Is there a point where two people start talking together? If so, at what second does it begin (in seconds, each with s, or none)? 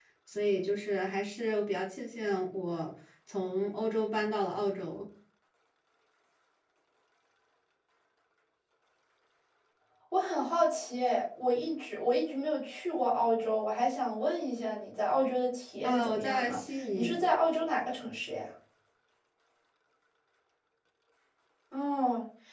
15.8 s